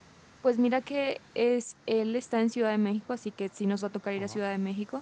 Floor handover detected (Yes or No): No